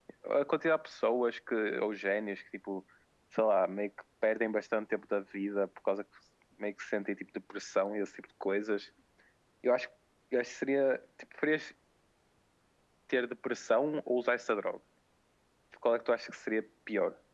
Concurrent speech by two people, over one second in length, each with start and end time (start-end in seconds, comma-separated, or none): none